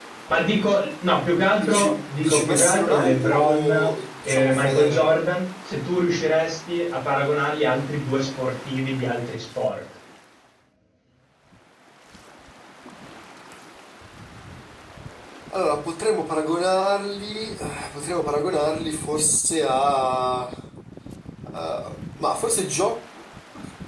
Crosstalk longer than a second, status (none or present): present